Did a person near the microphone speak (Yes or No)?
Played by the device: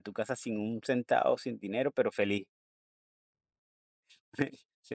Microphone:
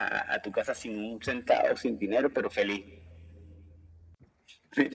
No